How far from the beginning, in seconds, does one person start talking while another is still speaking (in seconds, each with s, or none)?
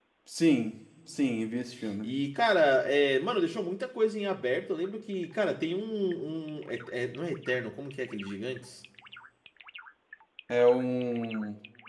none